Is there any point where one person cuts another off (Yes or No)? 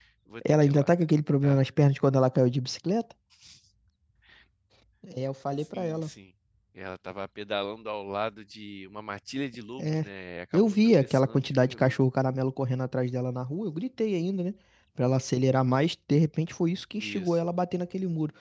Yes